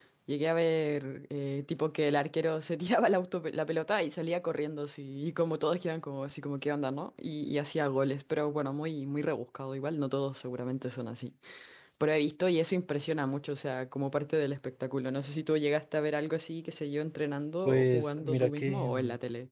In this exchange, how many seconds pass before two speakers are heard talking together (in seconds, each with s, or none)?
17.6 s